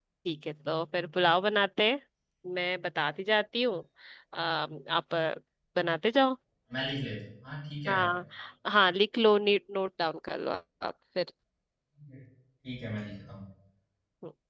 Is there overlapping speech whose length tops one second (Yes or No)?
No